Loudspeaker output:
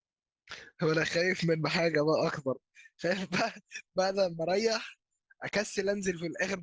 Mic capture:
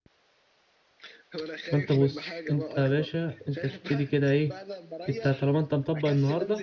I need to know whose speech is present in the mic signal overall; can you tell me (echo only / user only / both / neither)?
both